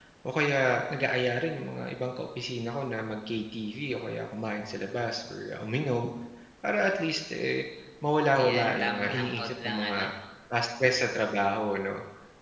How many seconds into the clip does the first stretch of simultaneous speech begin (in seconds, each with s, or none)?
8.3 s